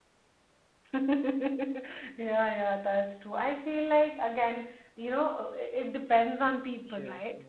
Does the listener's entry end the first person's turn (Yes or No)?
Yes